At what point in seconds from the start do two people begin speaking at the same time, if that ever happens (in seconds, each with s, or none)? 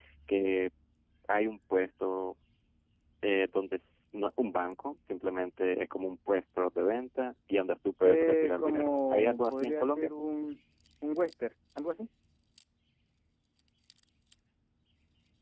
8.0 s